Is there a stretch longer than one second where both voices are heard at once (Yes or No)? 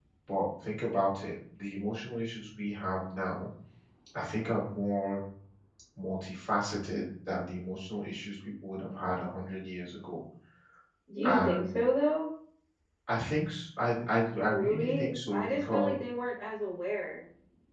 Yes